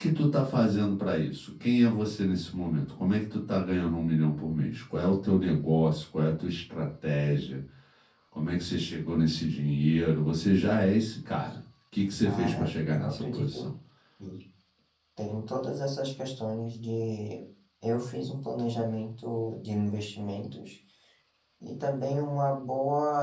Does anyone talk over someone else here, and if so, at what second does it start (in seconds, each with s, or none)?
12.2 s